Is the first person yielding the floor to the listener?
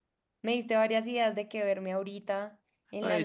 Yes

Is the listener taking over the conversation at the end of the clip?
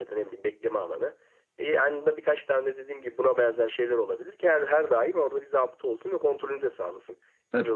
Yes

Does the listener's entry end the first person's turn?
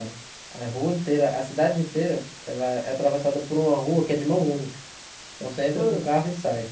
No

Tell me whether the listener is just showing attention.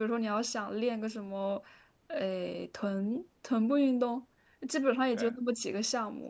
Yes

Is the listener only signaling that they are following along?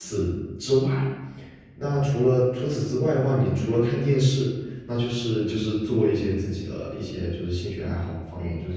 Yes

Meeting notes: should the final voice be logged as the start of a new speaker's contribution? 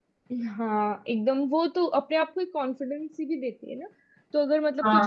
No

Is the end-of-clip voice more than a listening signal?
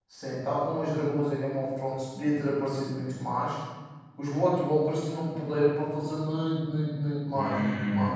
Yes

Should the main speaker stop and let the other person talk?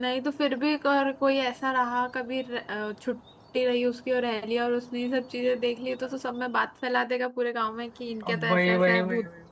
Yes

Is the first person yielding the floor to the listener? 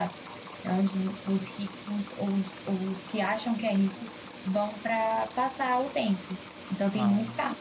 No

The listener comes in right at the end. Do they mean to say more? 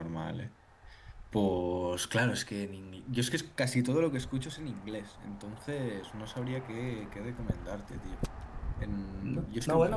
Yes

